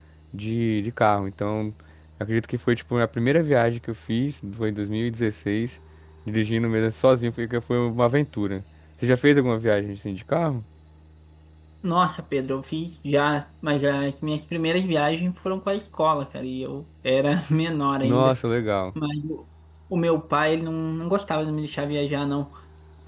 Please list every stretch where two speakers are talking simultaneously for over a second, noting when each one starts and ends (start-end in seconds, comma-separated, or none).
none